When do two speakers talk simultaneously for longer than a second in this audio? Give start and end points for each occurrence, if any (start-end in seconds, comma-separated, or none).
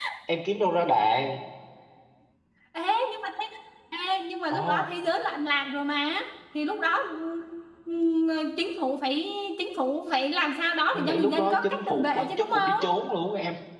10.9-12.8